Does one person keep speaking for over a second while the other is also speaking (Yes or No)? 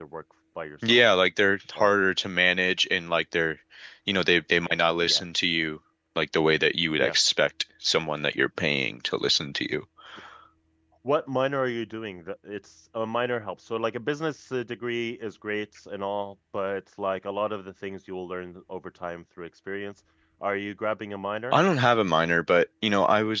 No